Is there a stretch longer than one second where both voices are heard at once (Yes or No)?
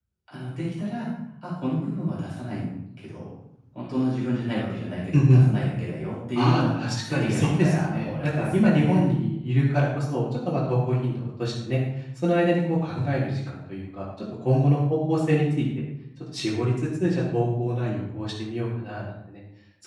Yes